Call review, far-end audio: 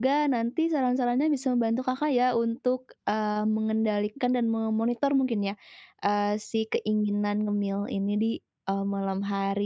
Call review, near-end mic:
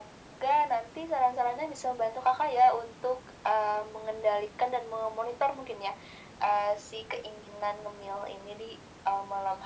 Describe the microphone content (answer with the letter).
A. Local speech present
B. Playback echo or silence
B